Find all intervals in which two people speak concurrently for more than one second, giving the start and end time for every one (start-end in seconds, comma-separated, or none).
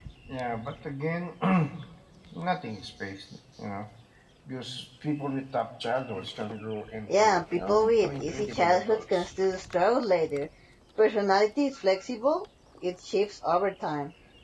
7.1-9.3